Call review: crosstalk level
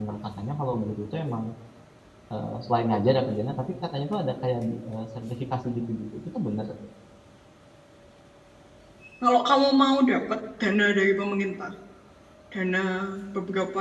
none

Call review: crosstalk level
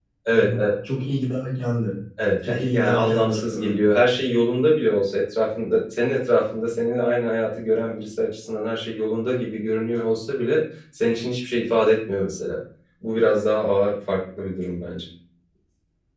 present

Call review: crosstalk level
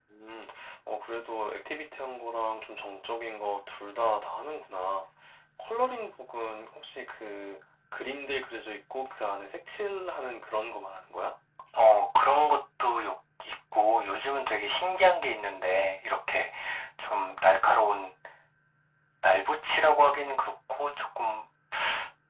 none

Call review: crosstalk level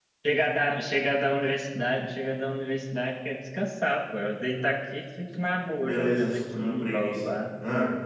present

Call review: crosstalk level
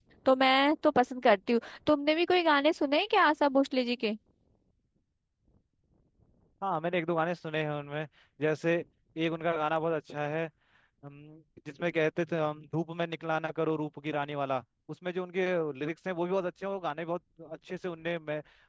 none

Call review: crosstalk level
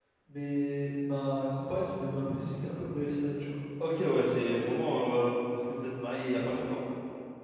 none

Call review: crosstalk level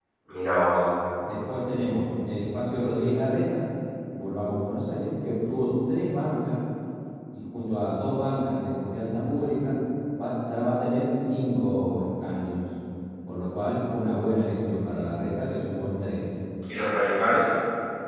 none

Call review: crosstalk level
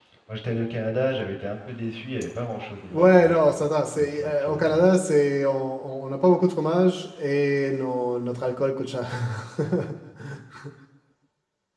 present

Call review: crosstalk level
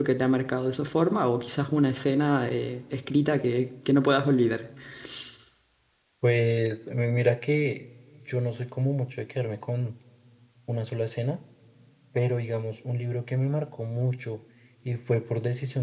none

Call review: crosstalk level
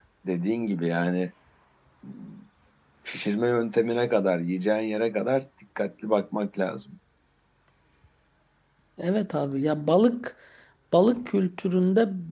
none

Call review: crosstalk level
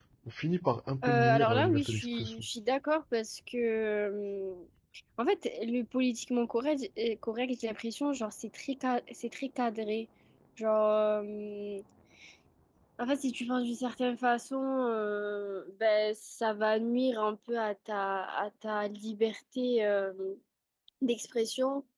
present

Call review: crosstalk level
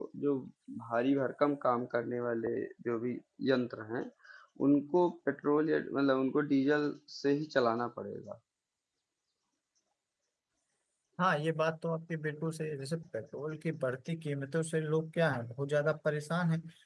none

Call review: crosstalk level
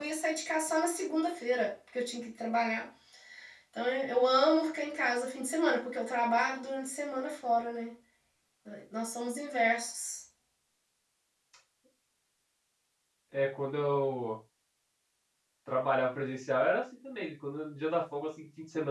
none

